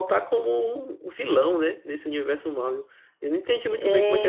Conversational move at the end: listening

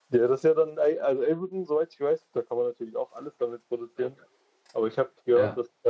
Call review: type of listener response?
listening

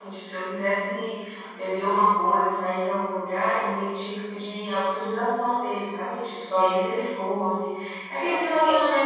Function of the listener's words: listening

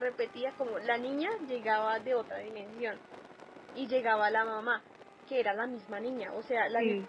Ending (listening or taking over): listening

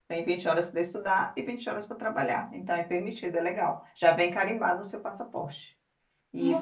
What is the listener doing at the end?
taking over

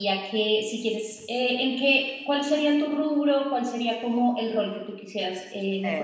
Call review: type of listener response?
taking over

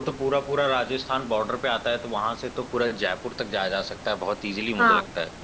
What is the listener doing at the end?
taking over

